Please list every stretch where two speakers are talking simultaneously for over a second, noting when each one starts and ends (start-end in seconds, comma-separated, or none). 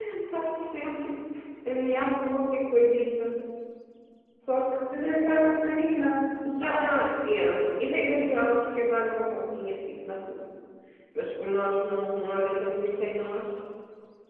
none